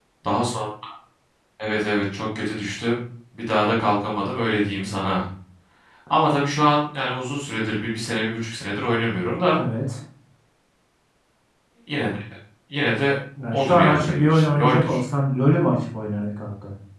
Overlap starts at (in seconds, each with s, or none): 13.5 s